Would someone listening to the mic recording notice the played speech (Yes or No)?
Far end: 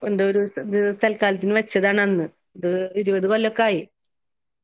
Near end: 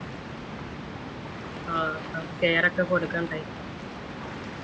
No